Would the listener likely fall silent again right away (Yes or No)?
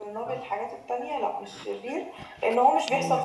Yes